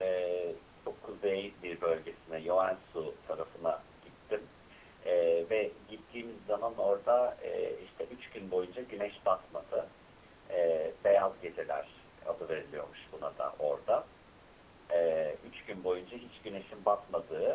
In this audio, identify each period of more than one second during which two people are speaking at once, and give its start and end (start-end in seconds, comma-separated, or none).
none